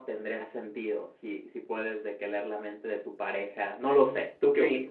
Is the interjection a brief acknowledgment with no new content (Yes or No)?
No